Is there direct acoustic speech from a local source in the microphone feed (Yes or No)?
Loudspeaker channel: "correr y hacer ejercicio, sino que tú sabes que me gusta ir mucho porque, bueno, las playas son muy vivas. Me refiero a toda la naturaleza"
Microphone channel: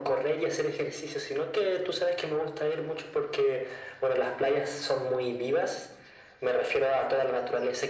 No